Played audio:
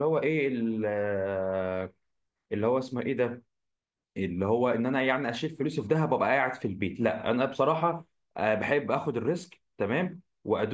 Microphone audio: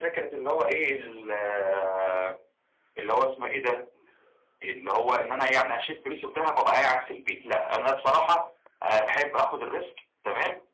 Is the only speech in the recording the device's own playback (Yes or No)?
Yes